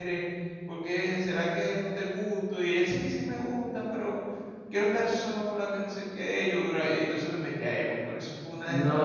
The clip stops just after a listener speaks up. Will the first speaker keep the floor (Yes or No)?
No